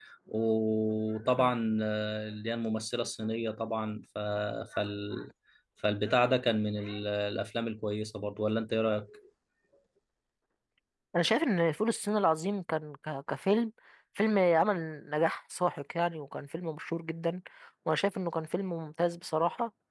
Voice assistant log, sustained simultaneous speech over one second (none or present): none